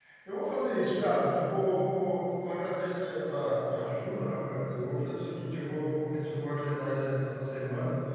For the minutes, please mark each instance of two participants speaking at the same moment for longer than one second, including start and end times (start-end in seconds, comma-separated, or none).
none